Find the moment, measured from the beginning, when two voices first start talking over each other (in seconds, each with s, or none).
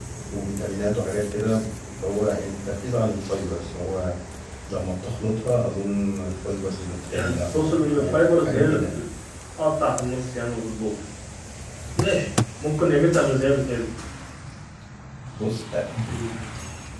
7.1 s